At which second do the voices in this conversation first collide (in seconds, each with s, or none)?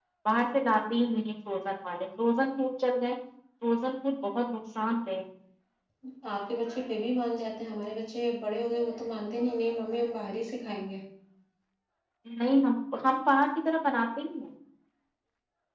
none